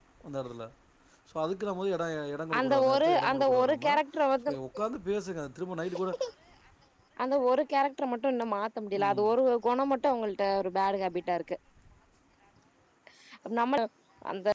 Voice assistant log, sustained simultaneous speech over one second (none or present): present